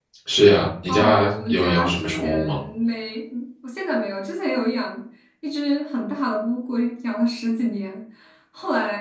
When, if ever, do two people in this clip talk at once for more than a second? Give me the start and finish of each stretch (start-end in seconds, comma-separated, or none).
0.9-2.6